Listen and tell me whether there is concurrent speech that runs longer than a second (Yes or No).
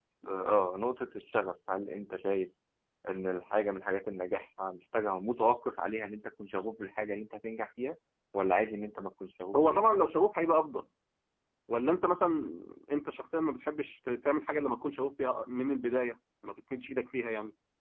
No